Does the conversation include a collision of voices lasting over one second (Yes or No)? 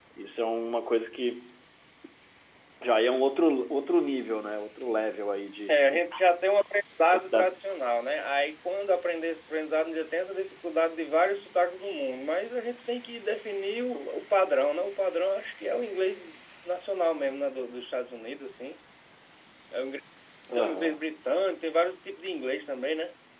No